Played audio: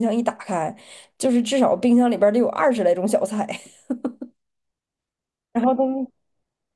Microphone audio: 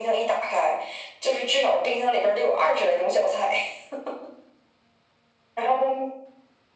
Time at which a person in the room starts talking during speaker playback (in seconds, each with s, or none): none